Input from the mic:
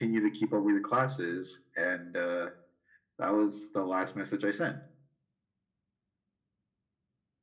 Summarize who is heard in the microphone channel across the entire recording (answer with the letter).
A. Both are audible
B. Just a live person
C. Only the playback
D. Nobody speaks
C